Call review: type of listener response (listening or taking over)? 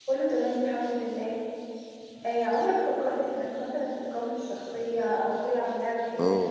taking over